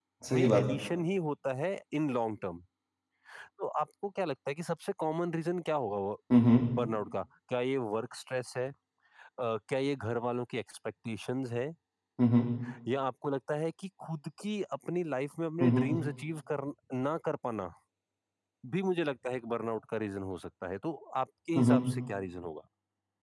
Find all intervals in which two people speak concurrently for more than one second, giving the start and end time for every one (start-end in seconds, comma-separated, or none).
none